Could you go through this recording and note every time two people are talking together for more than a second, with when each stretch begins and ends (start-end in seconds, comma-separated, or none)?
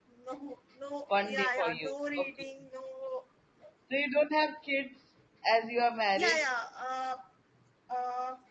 1.1-2.3